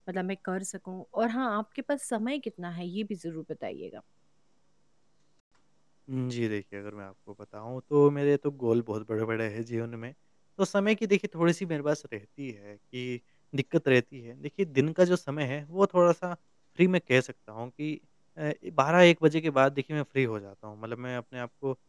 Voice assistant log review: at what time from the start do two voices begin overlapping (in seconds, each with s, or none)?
none